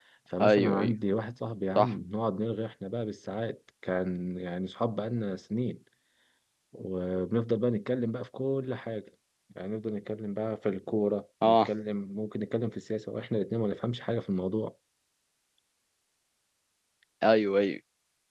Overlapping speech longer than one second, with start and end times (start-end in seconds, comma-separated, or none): none